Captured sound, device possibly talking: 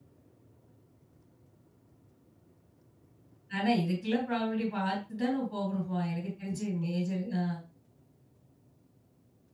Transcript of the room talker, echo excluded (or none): ஆனா இதுக்கெல்லாம் ப்ராபபிலிட்டி பார்த்து தான் போகணுமா எனக்கு தெரிஞ்சு மேஜர் ஆ.